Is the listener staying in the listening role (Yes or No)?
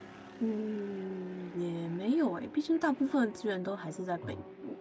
No